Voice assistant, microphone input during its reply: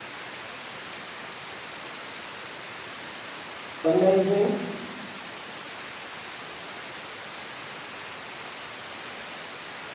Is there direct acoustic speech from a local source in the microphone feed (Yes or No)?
Yes